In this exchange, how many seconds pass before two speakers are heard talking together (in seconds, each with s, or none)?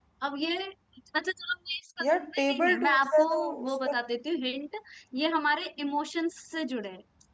2.0 s